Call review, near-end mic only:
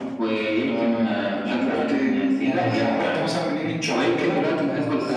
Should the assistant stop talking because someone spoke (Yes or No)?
Yes